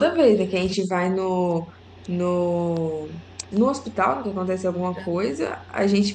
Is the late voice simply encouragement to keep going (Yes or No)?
Yes